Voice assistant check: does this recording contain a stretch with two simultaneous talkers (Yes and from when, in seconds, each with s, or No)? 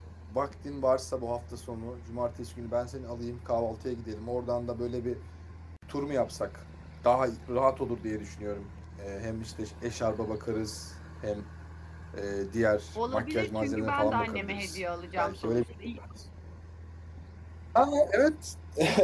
Yes, from 13.0 s